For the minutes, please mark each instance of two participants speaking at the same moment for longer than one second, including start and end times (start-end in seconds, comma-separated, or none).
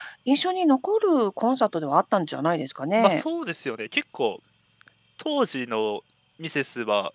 none